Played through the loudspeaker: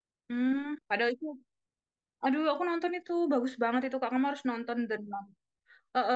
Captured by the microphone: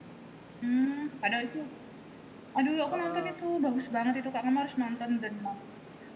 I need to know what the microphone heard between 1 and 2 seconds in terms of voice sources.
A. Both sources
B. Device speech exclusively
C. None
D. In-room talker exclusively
B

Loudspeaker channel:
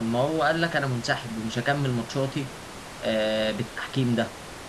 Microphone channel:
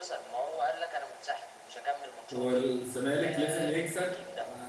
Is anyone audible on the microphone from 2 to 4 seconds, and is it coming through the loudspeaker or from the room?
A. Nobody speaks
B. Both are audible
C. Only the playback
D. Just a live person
B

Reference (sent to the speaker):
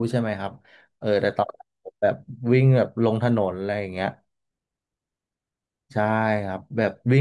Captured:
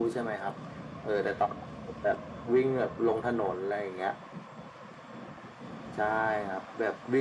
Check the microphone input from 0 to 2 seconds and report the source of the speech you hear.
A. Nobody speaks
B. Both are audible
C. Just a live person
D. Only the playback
D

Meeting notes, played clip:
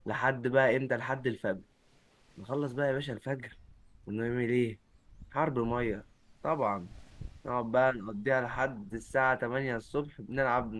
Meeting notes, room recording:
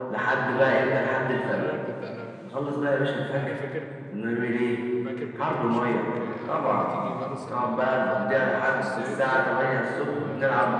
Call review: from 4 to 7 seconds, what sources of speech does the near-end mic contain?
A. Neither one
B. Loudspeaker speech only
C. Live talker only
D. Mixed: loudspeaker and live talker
D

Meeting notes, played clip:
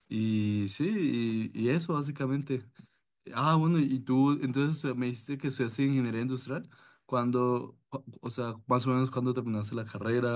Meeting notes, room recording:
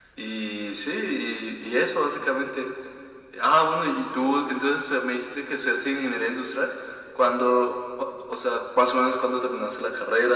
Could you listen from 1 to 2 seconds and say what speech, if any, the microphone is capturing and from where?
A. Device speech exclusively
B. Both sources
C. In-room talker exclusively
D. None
A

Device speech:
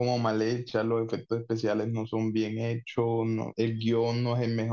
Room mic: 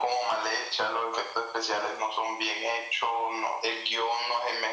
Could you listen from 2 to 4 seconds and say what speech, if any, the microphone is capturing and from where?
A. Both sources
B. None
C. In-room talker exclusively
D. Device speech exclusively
D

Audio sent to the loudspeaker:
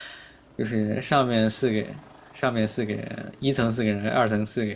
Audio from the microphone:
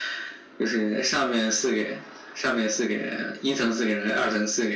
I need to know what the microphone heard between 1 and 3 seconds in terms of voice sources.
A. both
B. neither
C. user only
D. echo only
D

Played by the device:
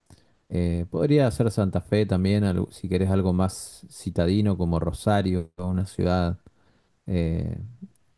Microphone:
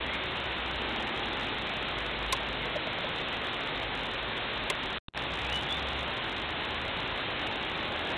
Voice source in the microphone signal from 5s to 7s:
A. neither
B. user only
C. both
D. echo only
A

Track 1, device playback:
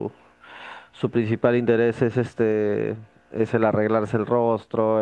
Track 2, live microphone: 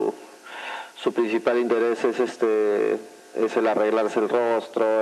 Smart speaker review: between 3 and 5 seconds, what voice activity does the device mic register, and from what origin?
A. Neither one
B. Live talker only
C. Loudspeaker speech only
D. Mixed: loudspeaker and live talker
C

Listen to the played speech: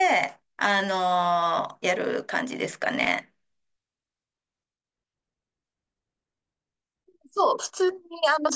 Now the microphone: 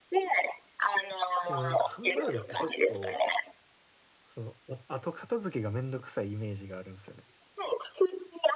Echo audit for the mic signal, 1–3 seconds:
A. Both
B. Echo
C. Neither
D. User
A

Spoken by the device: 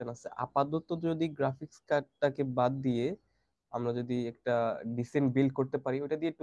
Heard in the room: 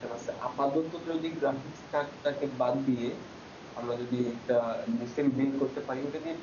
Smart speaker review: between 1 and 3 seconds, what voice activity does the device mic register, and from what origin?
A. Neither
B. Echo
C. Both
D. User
B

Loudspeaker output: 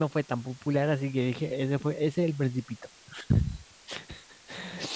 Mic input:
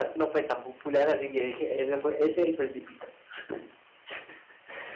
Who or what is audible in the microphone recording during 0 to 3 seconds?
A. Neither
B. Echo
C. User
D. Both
B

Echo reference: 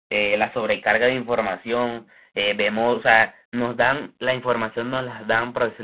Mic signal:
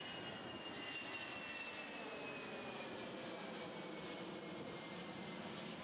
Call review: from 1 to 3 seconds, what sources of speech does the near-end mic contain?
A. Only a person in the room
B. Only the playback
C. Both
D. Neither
D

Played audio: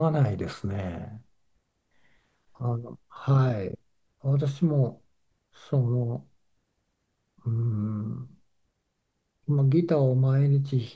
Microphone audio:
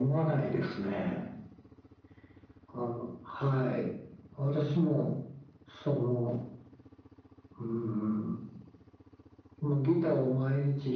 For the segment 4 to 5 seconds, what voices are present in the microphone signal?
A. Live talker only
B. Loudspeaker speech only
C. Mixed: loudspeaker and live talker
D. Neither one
B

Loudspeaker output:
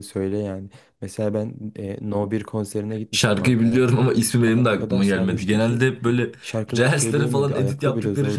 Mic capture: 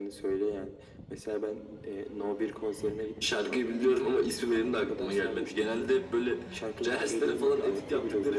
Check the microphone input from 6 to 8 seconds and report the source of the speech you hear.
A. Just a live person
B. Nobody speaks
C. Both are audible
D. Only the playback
D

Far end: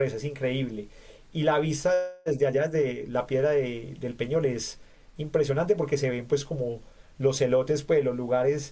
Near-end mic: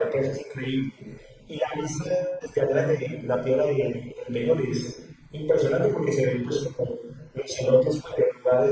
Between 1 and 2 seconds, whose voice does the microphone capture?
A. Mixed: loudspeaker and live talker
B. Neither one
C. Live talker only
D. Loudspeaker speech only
D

